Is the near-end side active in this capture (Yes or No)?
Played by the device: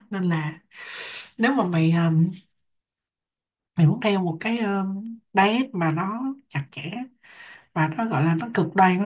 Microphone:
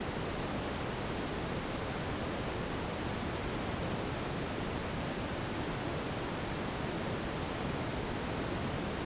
No